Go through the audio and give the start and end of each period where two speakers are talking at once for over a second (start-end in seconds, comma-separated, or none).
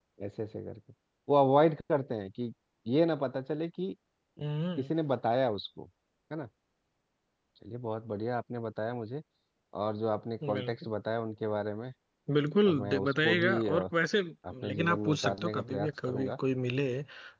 12.7-13.9, 14.7-16.3